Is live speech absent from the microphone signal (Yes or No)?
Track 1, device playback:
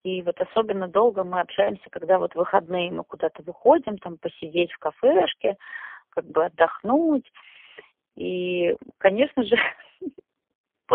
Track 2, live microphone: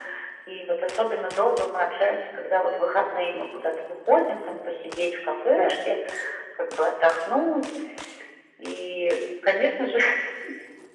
Yes